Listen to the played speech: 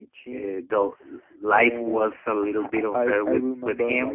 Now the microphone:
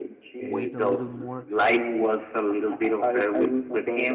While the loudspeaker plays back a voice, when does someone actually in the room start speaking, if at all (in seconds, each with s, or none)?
0.4 s